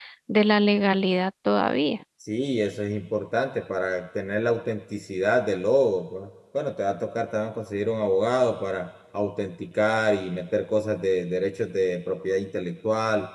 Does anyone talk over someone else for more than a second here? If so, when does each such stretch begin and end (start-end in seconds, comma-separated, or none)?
none